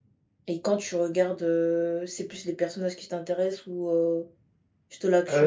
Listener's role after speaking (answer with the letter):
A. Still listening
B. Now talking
B